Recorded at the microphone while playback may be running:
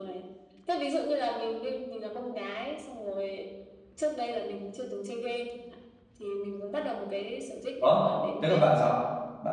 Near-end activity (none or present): present